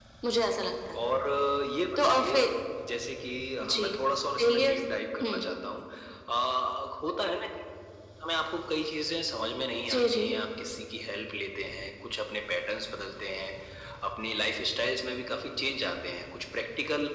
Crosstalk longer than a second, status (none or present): none